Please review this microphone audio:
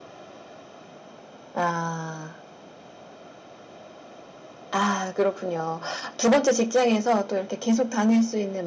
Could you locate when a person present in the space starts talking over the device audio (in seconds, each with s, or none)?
none